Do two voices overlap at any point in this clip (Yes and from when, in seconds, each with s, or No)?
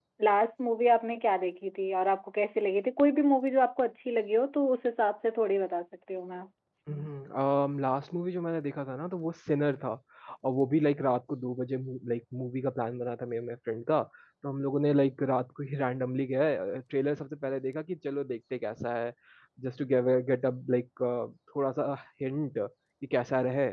No